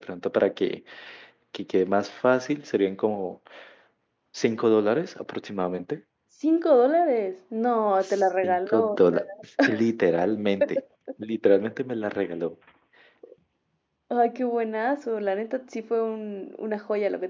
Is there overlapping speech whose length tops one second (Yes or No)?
Yes